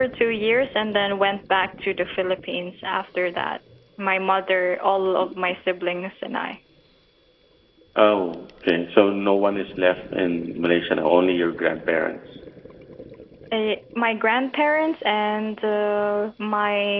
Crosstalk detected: No

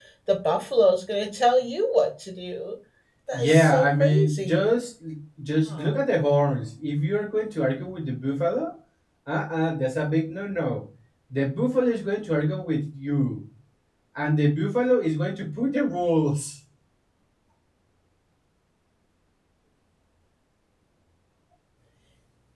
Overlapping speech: Yes, from 3.3 s

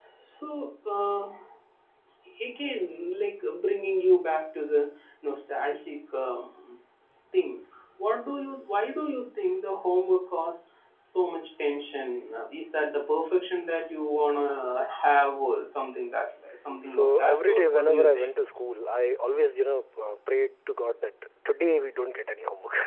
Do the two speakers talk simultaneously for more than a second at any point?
Yes, from 16.9 s

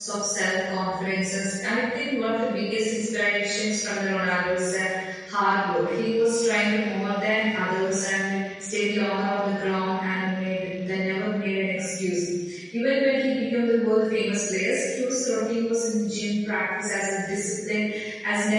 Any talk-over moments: No

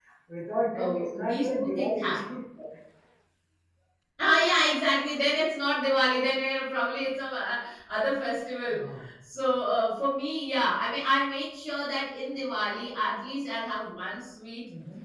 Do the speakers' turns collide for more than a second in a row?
Yes, from 0.7 s

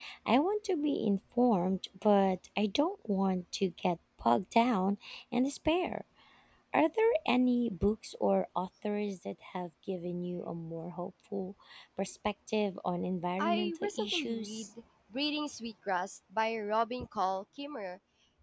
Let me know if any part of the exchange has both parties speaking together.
Yes, from 13.4 s

